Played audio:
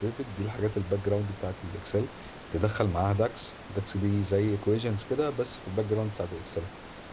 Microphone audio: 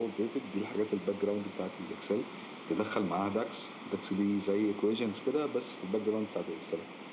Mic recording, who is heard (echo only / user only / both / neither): echo only